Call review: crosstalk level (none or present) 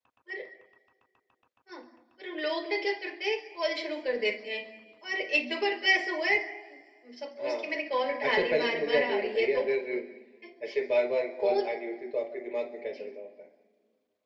present